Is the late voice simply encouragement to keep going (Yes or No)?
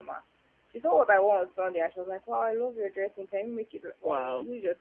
Yes